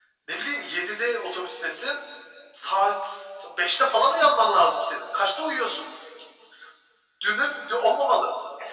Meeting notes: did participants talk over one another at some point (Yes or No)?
No